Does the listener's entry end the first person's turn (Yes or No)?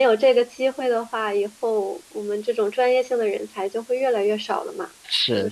Yes